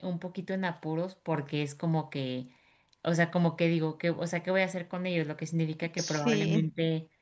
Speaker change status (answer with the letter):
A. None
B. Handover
A